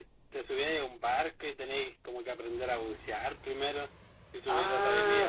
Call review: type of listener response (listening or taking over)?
taking over